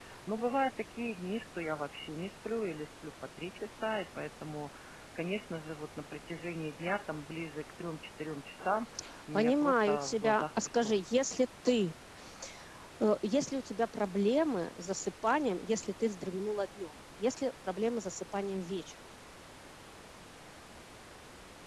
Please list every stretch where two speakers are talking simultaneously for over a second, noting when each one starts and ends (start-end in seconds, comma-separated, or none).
9.3-10.9